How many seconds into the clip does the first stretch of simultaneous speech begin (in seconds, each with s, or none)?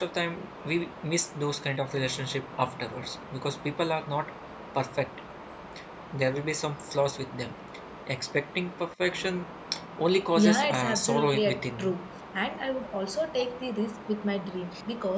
10.4 s